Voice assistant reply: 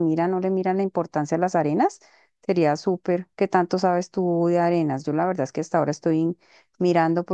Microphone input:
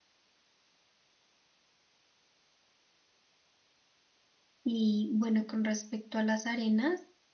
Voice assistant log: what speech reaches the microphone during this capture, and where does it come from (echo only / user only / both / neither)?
user only